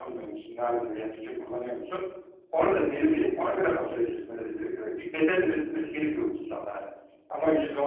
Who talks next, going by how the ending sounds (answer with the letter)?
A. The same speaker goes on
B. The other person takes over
A